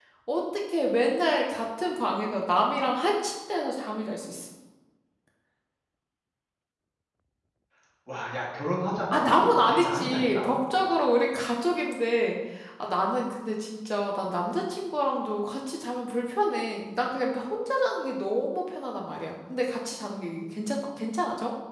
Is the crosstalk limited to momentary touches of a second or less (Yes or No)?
No